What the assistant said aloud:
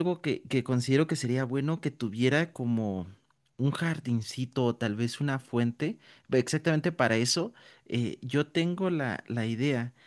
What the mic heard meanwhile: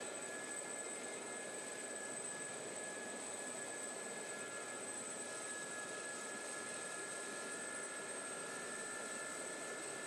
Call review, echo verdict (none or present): none